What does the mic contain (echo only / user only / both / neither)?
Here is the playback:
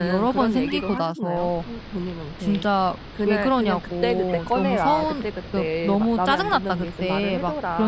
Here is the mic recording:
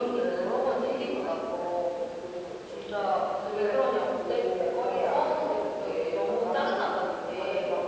echo only